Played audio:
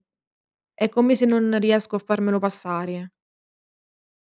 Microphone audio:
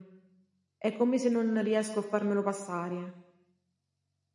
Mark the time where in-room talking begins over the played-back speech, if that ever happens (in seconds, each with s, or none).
none